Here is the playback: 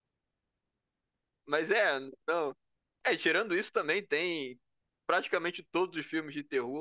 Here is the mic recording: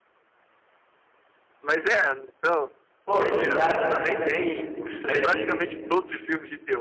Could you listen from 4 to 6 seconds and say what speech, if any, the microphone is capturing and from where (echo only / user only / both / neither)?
both